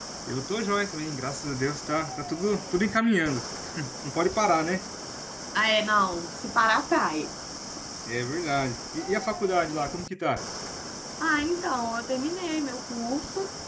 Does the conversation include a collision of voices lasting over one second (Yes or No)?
No